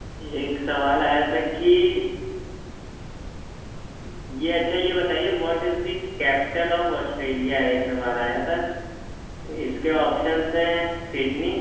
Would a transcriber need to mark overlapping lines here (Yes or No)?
No